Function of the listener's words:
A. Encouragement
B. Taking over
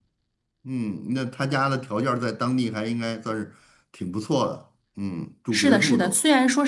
B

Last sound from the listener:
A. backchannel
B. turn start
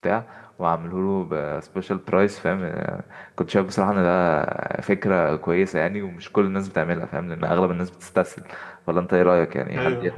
B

